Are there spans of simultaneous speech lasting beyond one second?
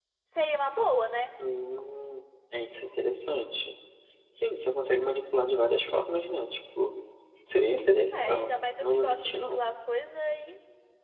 Yes, from 8.3 s

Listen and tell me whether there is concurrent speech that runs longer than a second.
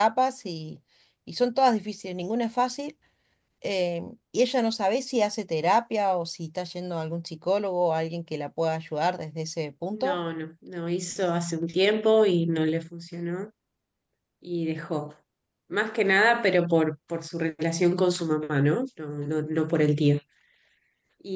No

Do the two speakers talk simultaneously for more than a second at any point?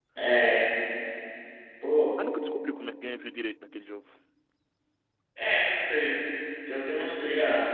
No

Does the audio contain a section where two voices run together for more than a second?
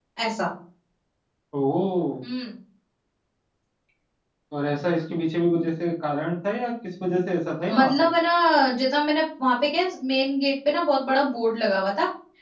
No

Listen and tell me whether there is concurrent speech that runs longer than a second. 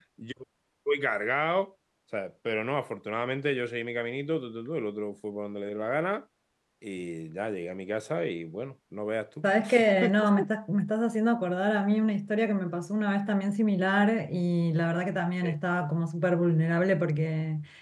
No

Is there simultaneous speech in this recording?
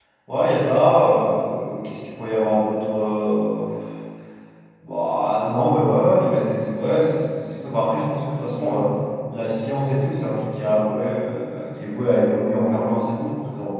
No

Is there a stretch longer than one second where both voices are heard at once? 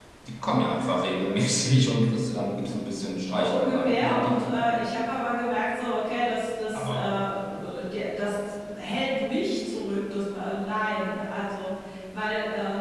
Yes, from 3.4 s

